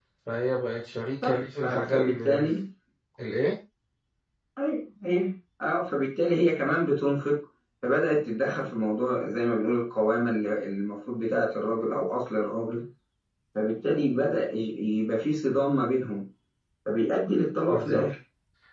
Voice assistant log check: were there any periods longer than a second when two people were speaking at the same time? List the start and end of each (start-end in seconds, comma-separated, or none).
1.2-2.5